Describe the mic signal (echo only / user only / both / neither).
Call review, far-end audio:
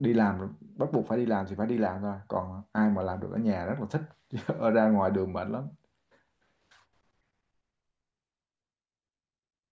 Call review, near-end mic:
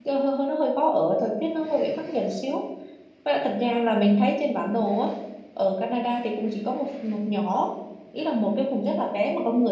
user only